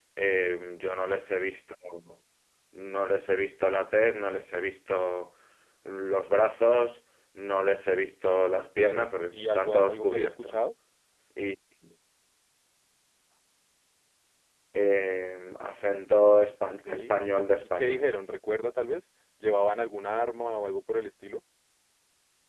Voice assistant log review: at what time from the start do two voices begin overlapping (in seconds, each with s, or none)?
8.8 s